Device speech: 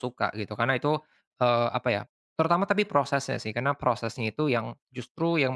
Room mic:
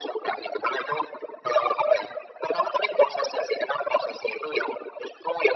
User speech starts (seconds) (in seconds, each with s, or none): none